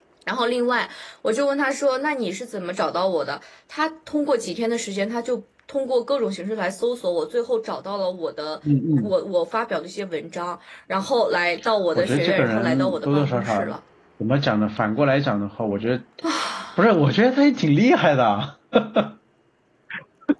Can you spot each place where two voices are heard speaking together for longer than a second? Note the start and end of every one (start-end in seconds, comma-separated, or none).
11.9-13.8